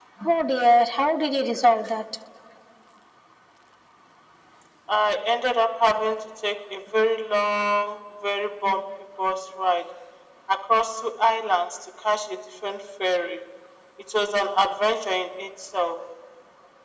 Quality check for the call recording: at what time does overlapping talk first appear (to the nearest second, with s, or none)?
none